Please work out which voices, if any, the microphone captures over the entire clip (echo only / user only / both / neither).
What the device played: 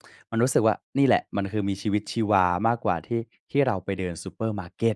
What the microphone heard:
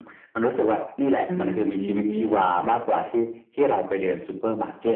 both